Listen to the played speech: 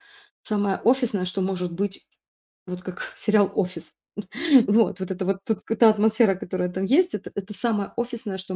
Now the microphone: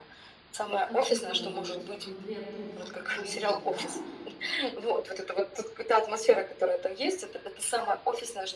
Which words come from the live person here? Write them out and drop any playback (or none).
отвыкла работать в конкрет ну, в офисном графике".